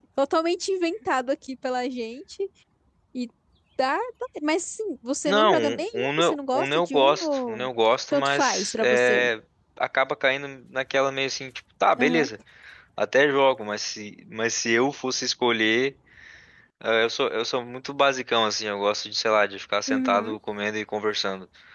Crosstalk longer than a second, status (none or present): present